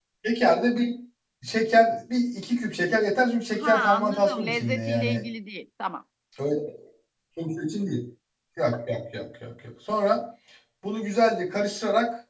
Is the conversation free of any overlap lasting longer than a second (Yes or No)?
No